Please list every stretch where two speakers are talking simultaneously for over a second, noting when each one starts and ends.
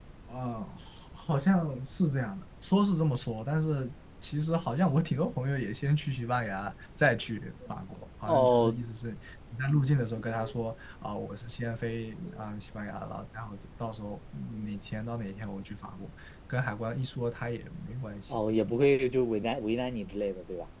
none

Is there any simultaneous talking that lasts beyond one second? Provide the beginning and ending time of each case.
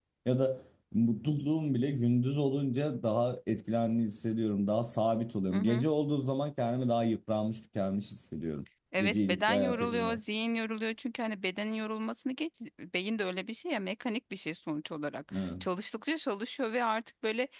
9.0-10.2

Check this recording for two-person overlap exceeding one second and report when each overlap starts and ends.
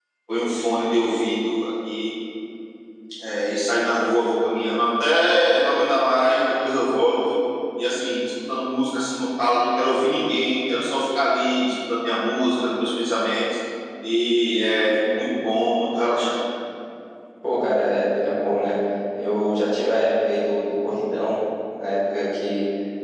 none

